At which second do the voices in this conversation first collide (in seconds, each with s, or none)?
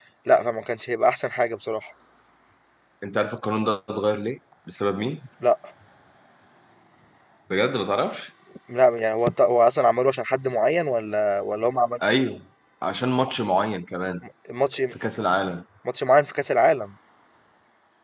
none